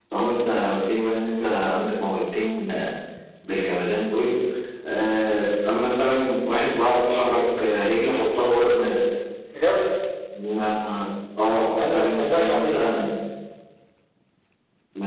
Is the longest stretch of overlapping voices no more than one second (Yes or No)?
No